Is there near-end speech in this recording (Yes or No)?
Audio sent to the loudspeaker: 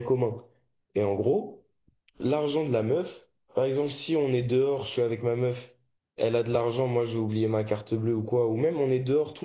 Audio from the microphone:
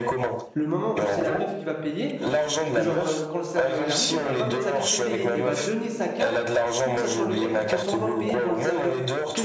Yes